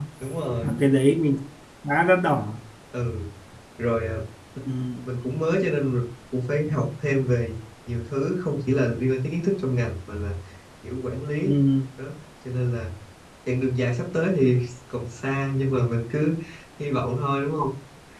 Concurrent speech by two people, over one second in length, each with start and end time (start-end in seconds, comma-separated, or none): none